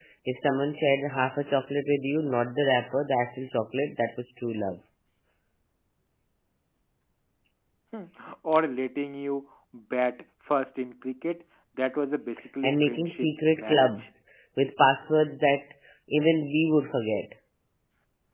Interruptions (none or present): present